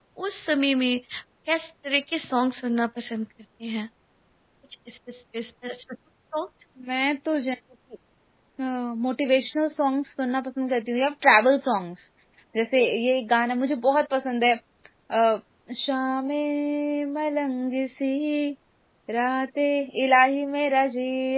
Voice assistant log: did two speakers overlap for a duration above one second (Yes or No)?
No